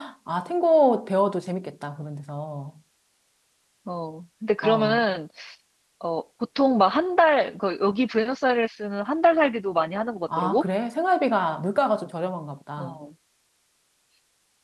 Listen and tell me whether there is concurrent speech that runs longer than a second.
No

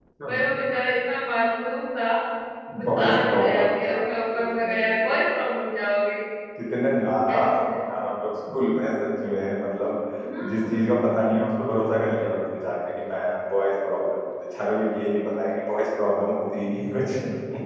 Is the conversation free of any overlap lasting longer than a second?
No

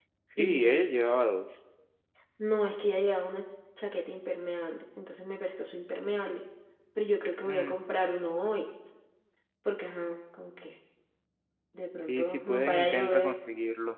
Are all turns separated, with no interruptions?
No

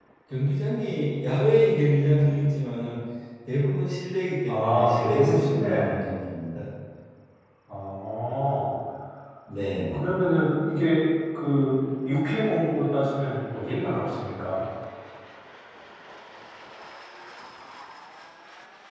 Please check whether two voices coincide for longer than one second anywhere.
Yes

